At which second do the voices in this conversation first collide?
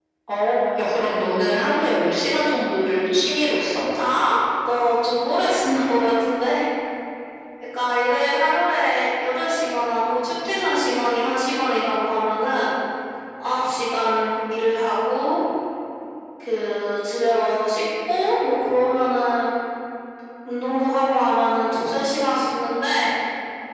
none

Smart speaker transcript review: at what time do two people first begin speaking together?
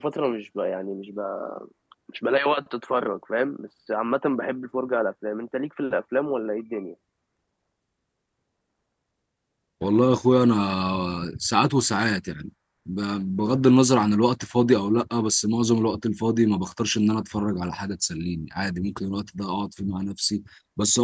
none

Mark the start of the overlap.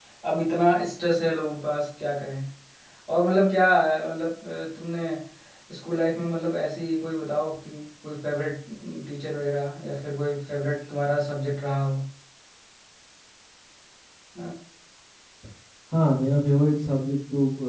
none

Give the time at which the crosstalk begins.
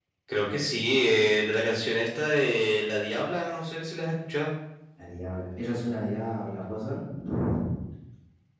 none

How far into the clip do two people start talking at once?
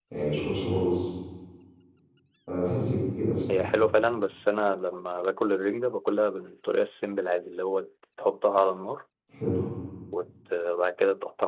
none

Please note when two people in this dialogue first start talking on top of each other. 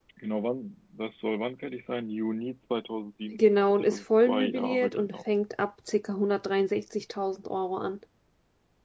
3.3 s

